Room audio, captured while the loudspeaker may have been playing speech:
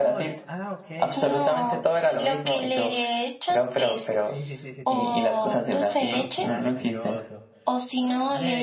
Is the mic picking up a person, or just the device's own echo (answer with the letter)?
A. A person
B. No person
A